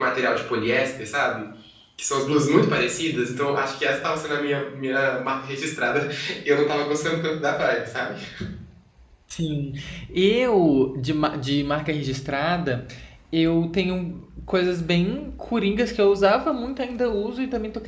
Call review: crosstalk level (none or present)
none